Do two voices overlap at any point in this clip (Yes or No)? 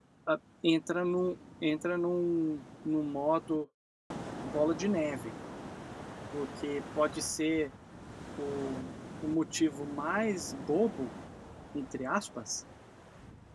No